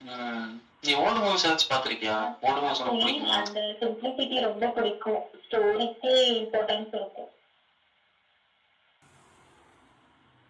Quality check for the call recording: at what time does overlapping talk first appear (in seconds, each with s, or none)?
2.0 s